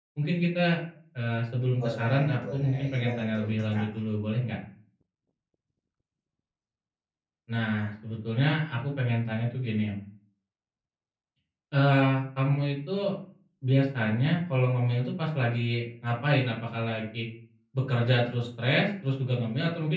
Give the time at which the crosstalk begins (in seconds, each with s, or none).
1.8 s